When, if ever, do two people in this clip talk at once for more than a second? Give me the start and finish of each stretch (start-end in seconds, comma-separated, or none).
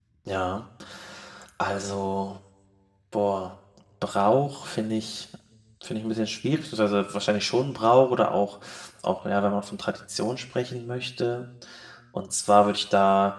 none